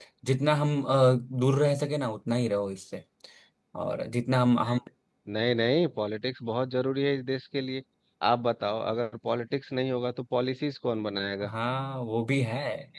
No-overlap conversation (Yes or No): Yes